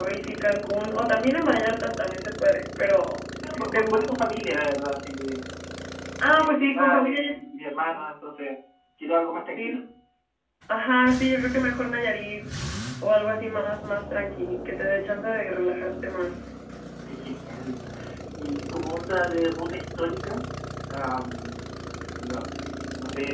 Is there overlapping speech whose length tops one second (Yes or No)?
Yes